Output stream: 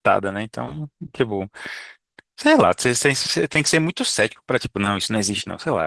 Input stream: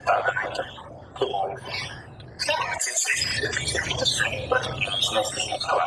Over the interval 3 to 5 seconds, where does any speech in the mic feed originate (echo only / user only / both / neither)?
echo only